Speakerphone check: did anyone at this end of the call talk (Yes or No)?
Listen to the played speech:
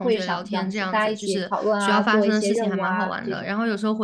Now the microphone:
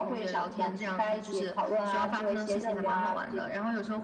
No